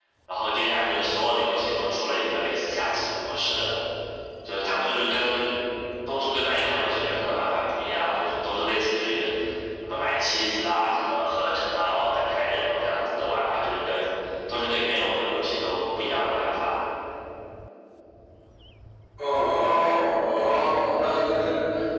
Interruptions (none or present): none